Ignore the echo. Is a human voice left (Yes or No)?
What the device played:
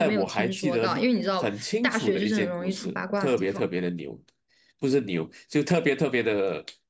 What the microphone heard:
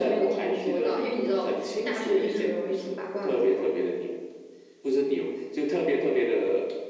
No